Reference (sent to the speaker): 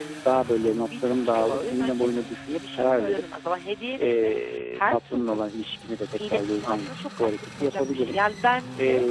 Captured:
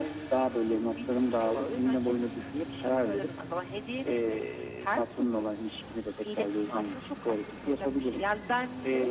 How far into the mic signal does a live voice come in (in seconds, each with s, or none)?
none